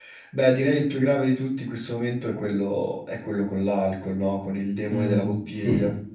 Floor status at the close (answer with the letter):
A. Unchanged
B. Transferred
B